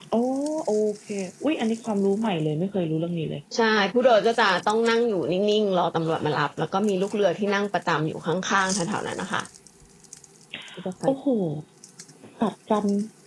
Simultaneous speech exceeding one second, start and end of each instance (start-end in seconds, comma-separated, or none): none